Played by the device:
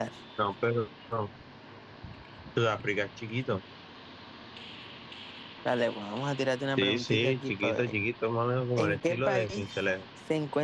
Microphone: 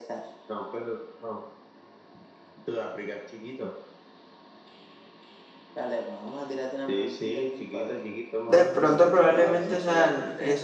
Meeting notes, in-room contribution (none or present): present